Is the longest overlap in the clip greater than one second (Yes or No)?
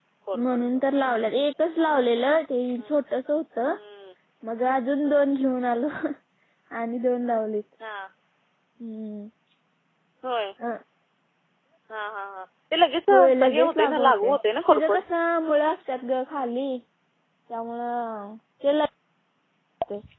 Yes